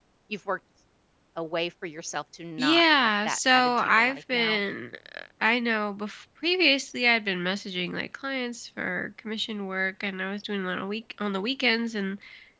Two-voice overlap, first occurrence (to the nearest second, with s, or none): 3 s